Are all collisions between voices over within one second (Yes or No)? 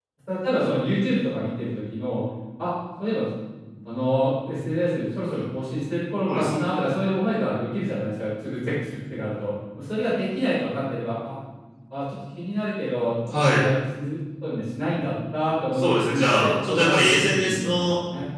No